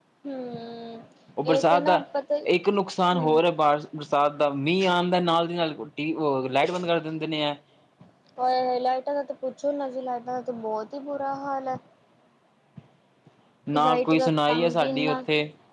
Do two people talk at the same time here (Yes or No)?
Yes